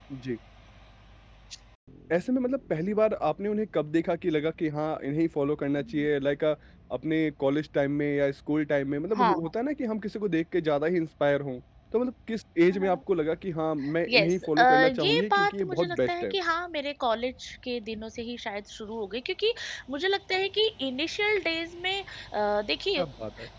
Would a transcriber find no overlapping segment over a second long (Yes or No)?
No